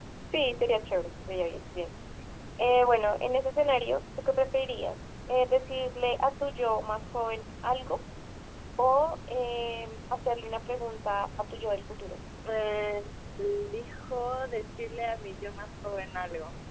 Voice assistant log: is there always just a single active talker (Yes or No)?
Yes